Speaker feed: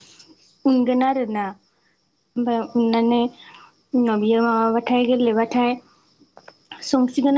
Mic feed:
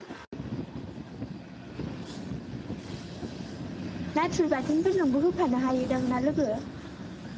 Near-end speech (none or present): present